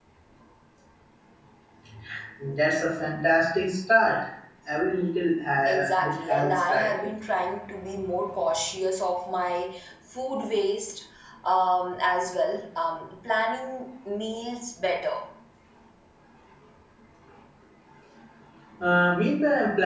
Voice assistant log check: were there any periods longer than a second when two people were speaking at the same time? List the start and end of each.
5.7-6.9

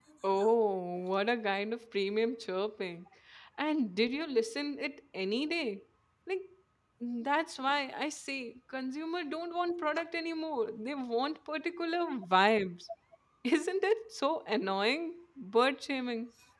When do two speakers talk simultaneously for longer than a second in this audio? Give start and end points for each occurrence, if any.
none

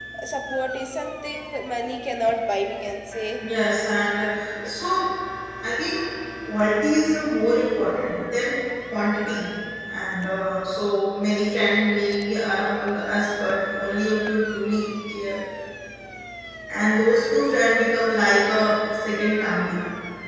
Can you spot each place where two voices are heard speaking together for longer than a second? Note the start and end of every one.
none

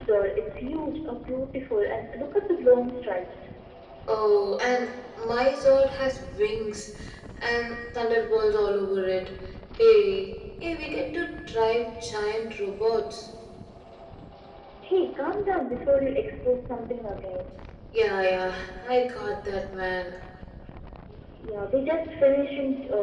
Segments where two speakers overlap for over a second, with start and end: none

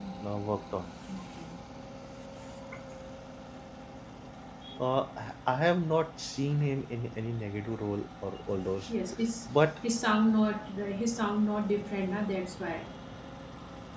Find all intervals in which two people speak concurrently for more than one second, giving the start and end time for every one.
none

